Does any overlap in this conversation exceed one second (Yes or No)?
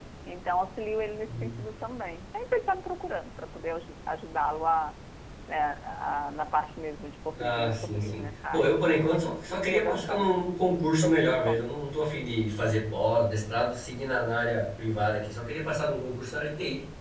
Yes